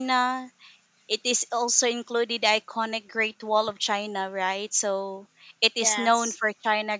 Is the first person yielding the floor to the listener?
No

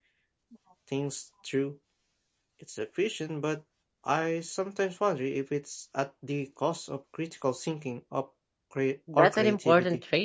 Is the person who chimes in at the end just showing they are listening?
No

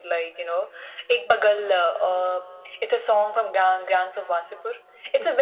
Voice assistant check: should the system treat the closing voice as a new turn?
No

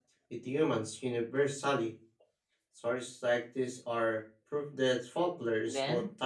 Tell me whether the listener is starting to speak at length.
Yes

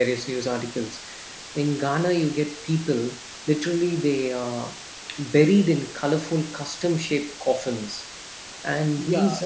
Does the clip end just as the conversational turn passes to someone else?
No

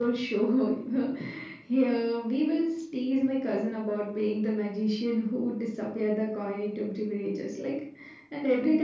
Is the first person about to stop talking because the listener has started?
No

